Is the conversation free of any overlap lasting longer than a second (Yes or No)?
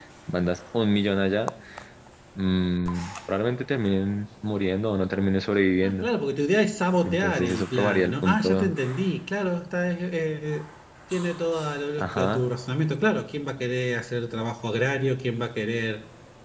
No